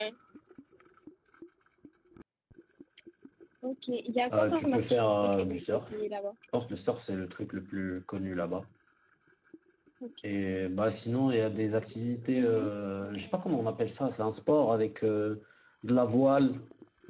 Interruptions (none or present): present